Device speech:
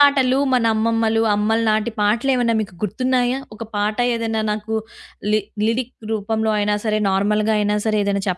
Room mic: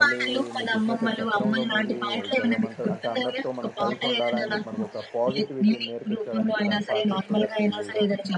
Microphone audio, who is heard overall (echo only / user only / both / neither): both